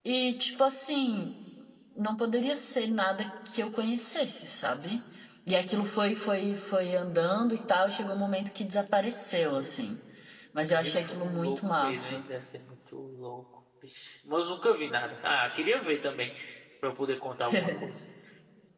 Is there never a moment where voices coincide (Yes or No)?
No